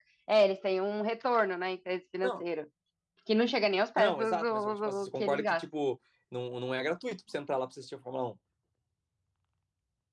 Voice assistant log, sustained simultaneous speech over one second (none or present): present